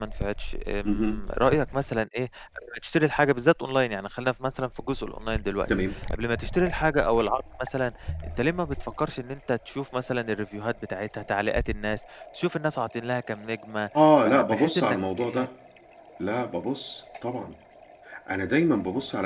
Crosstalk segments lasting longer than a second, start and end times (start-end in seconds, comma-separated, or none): 14.2-15.5